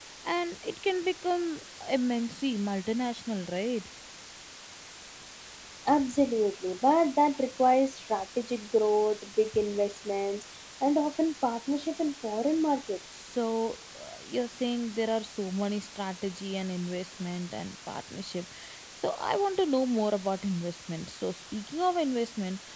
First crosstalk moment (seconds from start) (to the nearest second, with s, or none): none